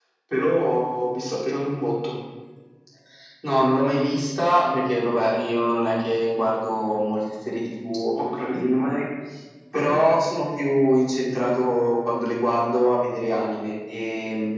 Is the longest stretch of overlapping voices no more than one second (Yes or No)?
Yes